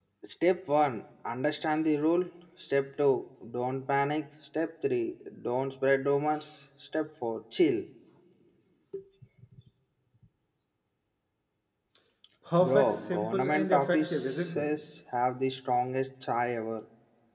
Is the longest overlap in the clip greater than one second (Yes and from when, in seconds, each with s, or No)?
Yes, from 12.6 s